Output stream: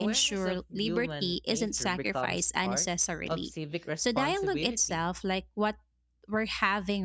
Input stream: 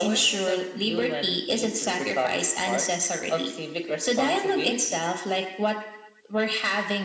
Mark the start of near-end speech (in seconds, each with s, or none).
none